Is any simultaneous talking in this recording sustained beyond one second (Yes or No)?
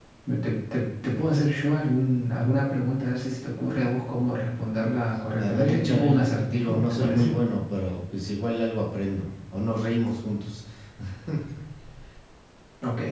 Yes